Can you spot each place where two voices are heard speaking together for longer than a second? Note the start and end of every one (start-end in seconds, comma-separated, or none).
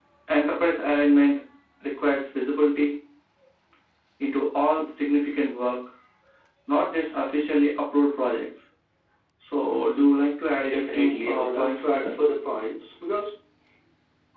10.7-12.1